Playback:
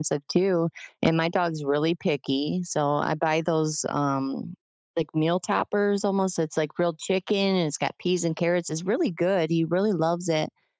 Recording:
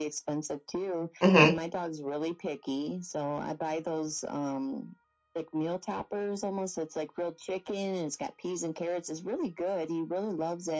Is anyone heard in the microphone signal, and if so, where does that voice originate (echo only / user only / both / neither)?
both